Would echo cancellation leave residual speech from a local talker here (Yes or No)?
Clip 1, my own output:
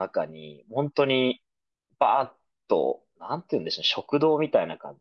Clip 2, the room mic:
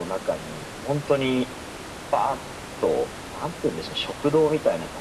No